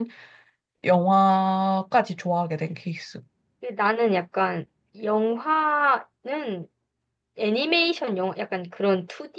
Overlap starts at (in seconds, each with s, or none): none